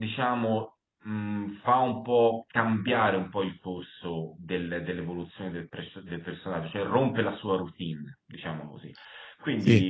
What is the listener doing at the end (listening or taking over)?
listening